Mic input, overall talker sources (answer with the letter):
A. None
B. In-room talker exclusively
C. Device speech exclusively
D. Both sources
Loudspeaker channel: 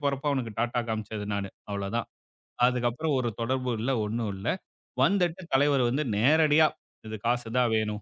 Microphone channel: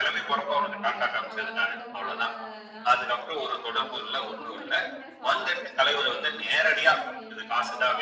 D